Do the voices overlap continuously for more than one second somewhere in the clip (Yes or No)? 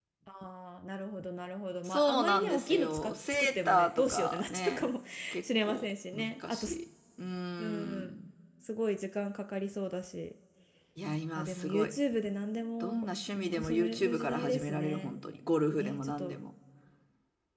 Yes